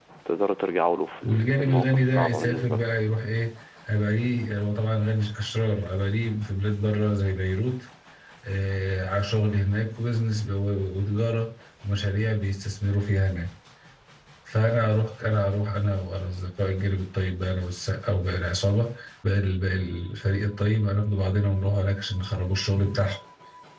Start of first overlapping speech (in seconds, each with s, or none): 1.2 s